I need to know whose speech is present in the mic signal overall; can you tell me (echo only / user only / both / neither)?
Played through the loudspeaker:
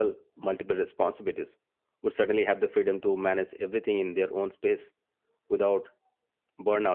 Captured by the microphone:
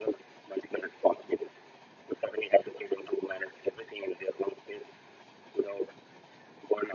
echo only